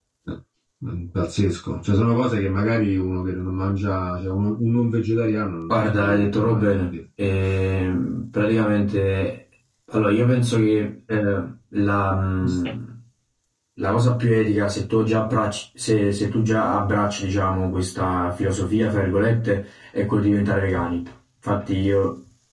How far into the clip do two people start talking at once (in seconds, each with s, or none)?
5.7 s